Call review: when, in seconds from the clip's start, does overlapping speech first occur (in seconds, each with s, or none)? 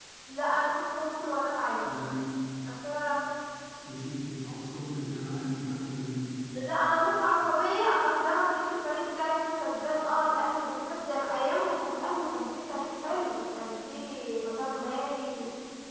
none